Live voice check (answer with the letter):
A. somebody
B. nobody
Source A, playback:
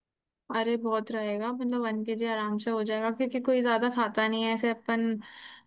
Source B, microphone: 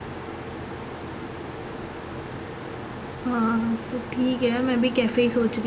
A